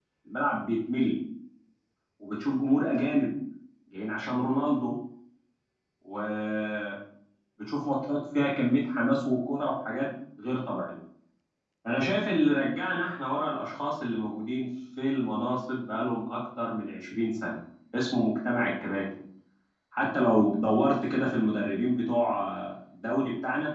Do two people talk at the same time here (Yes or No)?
No